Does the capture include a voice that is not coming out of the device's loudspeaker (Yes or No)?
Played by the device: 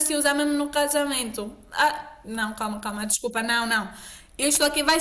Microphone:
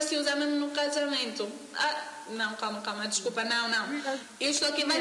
Yes